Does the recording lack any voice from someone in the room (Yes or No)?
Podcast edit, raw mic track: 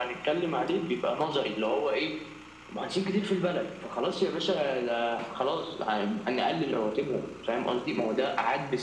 Yes